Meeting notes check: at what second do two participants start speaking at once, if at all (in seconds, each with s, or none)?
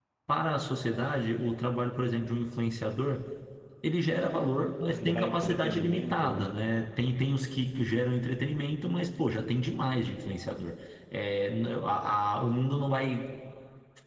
4.9 s